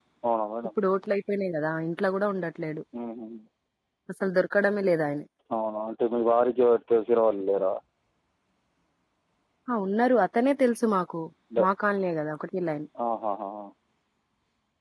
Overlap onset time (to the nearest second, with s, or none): none